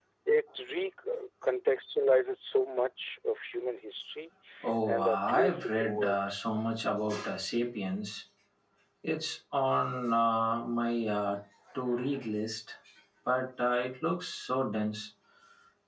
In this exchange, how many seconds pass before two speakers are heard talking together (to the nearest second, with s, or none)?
5 s